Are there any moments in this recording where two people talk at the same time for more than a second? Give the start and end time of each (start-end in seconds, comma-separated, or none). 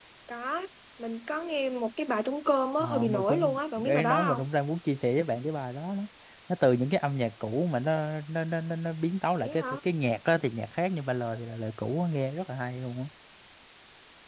2.8-4.4